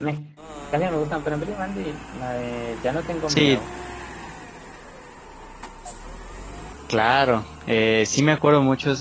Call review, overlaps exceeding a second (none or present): none